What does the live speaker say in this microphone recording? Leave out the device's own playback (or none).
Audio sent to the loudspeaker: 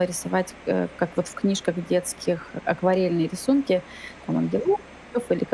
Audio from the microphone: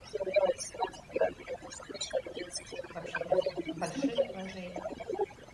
вообще без в больших вложений.